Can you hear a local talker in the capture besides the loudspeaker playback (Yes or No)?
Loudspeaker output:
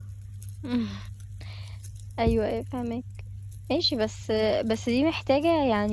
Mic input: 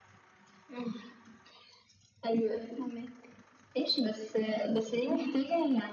No